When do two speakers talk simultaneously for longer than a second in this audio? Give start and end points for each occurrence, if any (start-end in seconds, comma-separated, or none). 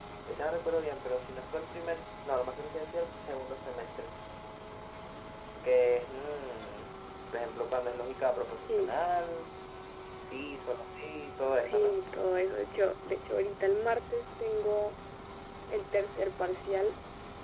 none